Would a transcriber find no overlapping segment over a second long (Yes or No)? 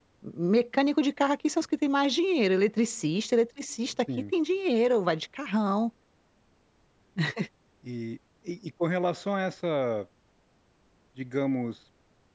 Yes